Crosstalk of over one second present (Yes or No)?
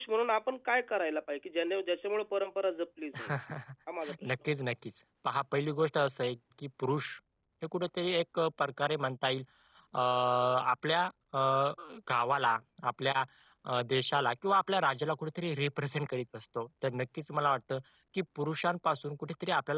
No